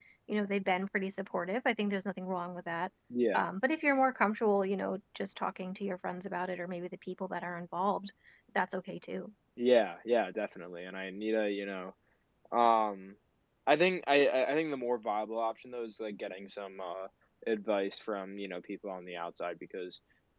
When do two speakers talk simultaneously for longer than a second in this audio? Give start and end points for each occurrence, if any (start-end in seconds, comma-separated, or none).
none